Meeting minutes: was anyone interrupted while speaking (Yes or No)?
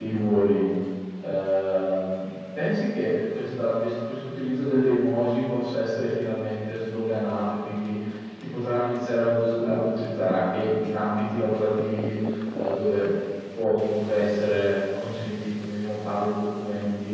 No